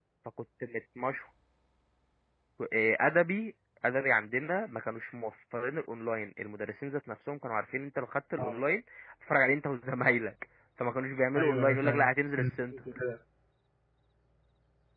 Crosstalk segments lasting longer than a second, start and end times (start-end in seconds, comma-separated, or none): 11.4-12.7